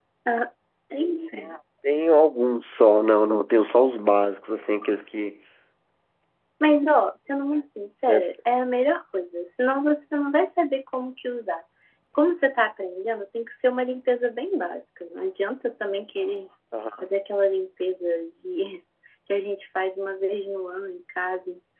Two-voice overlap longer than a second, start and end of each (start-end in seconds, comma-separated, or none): none